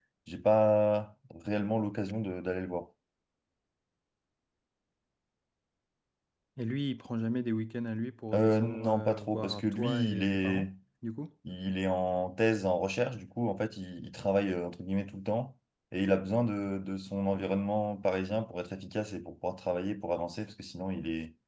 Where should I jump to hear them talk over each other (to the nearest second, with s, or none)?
8 s